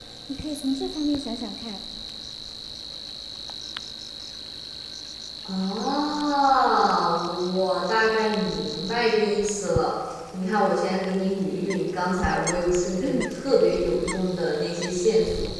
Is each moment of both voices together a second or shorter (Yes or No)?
Yes